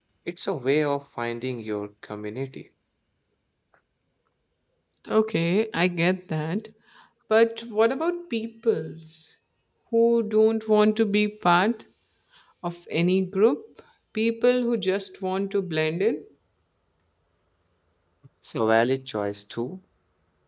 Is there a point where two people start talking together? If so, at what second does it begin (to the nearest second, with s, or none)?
none